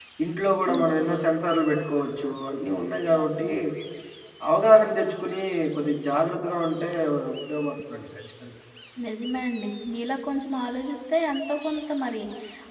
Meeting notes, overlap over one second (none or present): none